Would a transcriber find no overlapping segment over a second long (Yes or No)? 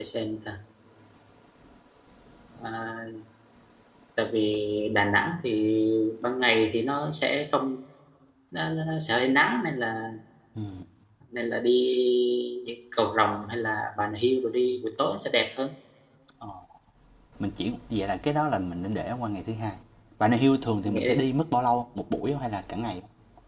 Yes